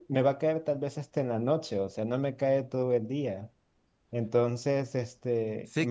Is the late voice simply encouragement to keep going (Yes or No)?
No